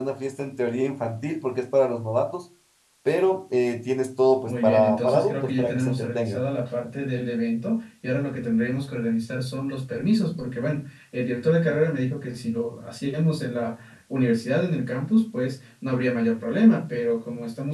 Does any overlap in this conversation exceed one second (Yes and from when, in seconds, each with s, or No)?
Yes, from 4.5 s